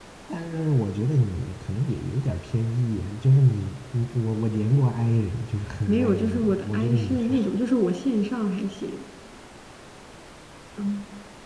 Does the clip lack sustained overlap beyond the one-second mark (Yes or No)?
No